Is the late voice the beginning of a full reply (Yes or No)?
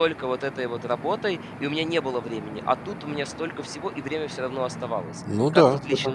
Yes